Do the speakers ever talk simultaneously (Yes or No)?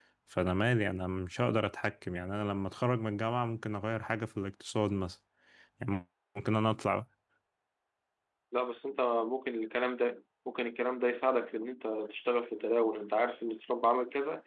No